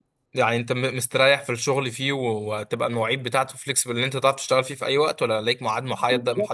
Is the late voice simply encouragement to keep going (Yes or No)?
No